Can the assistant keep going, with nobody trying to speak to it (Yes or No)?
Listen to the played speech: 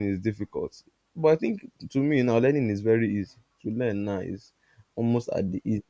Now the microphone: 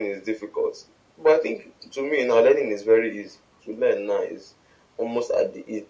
Yes